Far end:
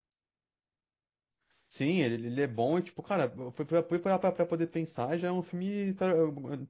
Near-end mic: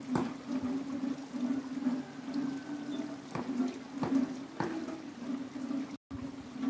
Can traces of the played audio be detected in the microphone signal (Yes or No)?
No